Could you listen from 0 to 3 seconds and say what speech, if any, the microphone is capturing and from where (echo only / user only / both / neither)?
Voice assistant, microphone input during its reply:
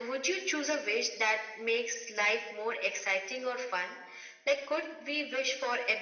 echo only